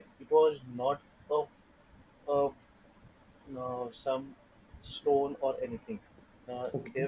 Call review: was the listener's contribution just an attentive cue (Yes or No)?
Yes